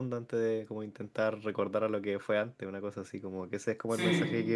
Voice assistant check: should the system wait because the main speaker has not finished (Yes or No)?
Yes